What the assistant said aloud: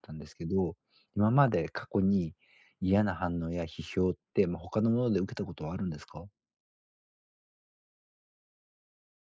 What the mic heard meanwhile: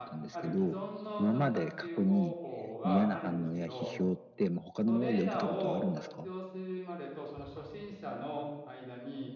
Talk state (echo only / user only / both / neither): both